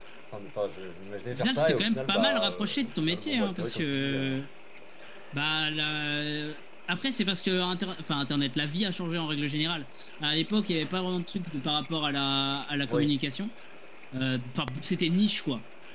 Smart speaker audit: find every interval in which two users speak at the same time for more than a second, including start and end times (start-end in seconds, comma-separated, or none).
1.3-4.3